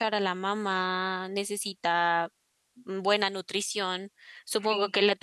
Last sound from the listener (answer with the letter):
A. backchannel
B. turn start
A